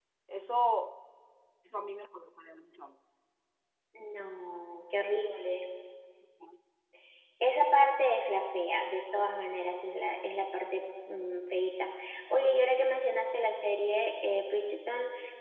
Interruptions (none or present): none